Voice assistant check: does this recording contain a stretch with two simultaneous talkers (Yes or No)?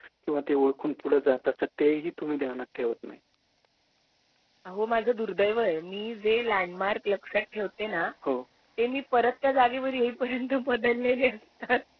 No